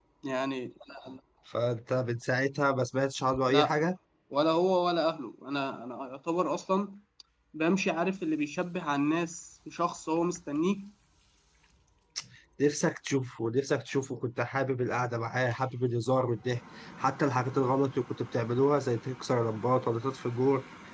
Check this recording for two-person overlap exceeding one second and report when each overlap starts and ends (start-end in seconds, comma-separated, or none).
none